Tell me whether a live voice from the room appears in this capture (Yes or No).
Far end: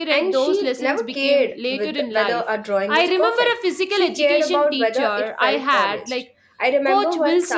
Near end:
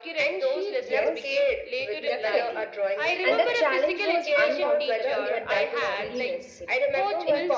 Yes